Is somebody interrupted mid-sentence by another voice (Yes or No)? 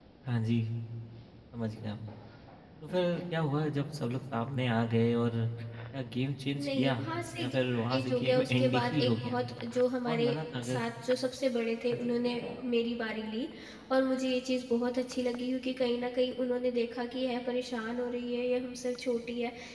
Yes